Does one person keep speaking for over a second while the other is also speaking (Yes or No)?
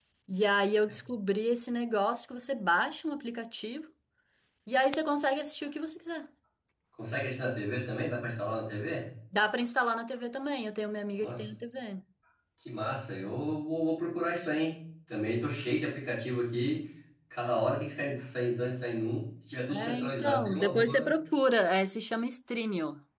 Yes